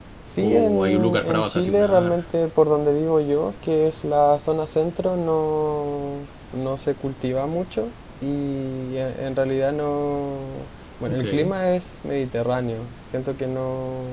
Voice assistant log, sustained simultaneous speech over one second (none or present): present